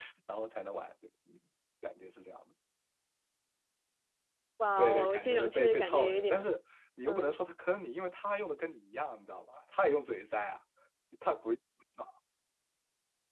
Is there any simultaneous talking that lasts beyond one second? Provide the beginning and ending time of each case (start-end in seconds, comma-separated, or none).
4.8-6.5